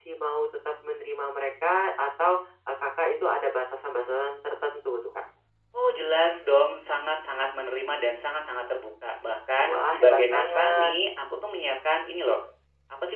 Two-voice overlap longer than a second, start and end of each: 9.7-10.9

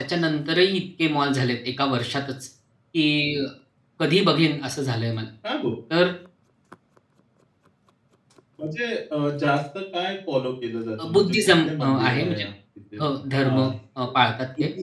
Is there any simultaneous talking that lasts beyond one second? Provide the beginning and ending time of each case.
11.0-12.4

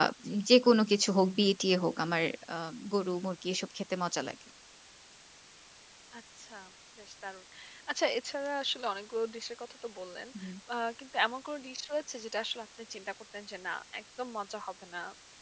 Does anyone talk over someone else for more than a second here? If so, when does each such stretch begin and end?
none

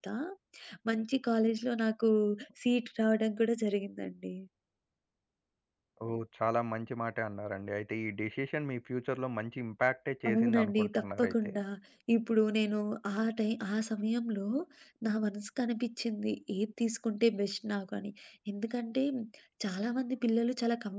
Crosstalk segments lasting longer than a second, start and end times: 10.3-11.5

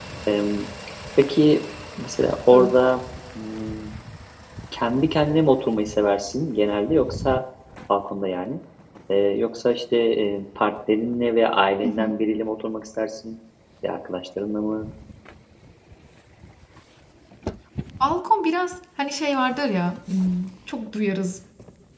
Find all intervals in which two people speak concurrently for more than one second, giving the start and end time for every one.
none

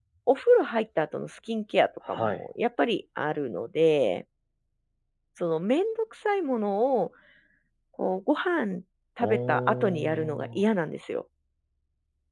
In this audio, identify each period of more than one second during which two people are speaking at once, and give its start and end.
9.2-10.5

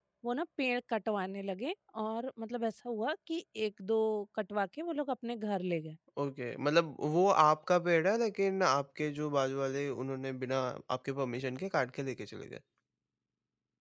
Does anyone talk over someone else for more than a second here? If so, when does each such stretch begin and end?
none

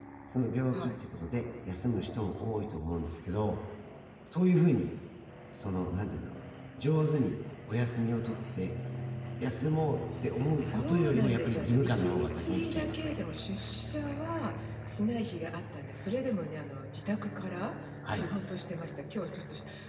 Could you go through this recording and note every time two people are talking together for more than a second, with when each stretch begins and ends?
10.6-13.1

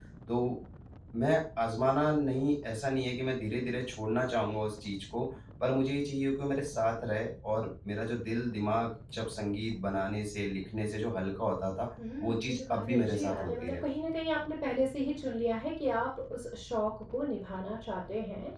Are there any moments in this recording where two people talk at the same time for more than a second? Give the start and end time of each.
12.2-13.8

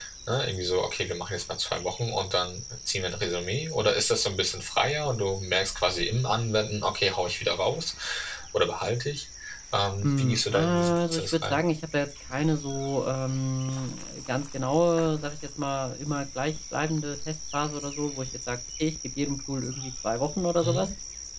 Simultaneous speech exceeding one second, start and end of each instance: 10.0-11.6

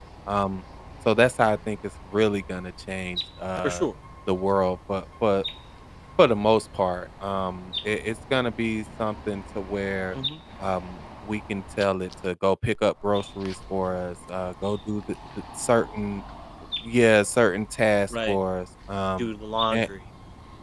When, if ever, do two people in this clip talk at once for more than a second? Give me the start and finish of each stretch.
none

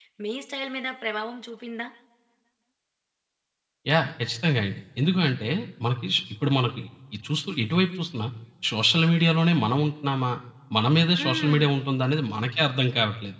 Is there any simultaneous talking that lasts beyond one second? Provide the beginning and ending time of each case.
none

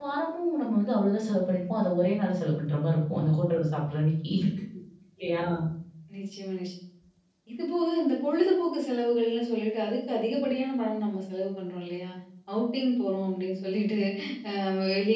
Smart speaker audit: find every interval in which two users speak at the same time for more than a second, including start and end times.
none

